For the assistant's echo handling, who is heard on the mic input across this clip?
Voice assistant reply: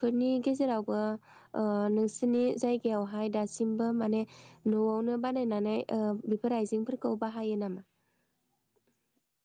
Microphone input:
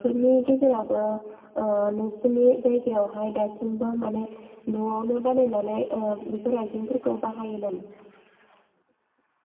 echo only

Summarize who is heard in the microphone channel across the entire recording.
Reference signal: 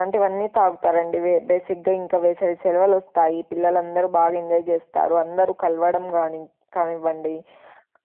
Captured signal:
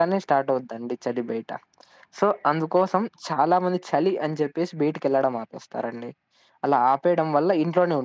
user only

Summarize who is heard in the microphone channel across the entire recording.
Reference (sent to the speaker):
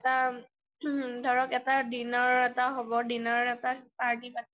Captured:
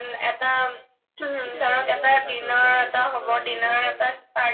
both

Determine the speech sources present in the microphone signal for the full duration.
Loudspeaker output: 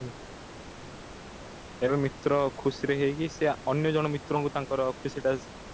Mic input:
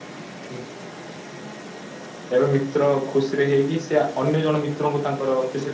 echo only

